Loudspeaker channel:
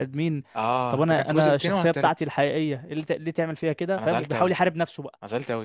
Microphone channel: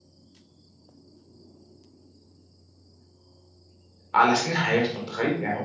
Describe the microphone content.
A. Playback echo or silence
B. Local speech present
B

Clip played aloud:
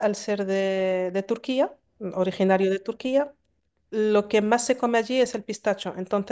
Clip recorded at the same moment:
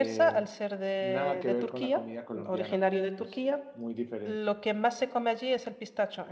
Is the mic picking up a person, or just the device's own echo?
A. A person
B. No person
A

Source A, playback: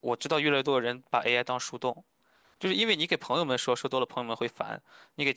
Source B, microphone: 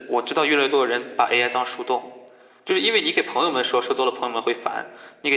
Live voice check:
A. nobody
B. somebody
A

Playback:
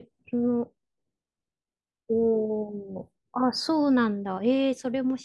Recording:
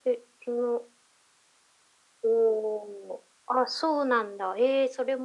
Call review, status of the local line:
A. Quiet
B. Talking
A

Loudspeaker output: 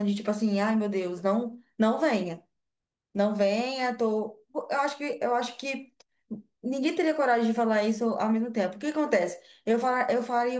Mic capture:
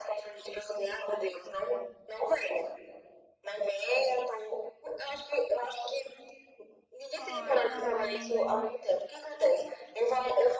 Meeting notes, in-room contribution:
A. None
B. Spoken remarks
B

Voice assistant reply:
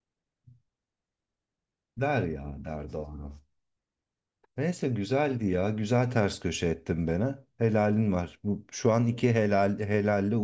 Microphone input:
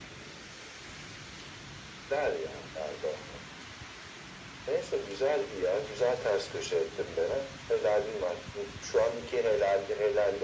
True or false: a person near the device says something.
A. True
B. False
B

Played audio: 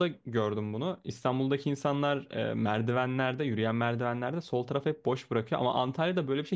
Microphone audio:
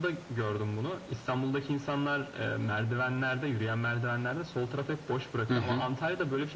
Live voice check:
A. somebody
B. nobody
A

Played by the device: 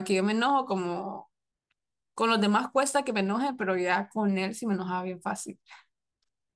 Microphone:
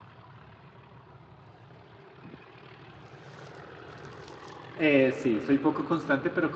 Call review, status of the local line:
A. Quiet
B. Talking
B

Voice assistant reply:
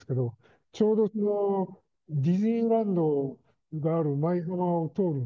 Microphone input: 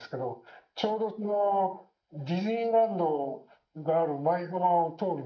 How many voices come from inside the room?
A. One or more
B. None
B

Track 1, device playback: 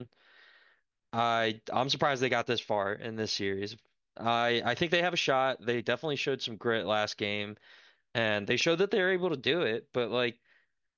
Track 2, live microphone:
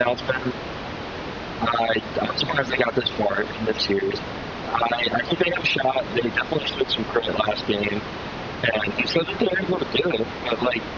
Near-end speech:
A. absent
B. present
A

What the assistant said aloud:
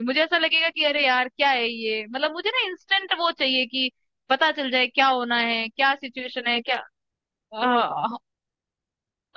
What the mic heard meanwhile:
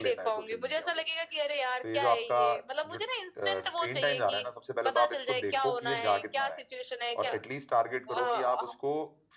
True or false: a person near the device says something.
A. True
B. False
A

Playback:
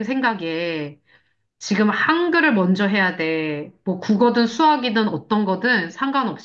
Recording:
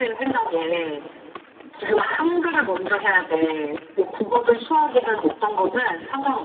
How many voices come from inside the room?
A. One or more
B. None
B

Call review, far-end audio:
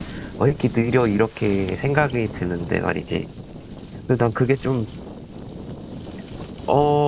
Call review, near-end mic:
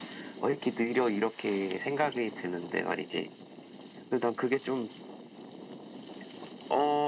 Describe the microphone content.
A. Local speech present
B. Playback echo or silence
B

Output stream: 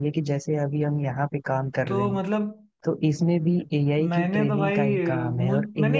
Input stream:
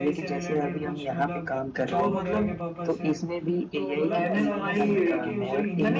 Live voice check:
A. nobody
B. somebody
B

